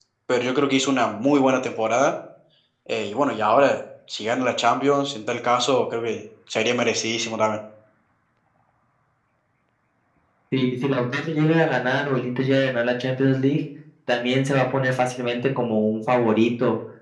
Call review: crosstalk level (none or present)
none